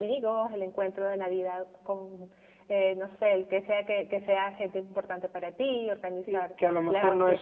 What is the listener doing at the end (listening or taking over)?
taking over